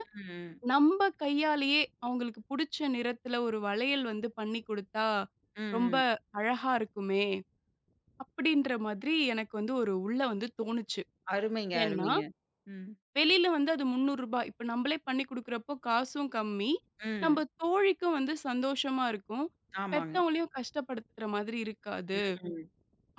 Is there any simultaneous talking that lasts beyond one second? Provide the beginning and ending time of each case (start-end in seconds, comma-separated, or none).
none